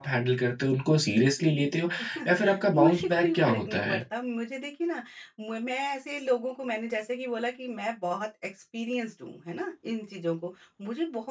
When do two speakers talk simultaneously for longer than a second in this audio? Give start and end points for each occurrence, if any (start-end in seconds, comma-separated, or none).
2.8-4.0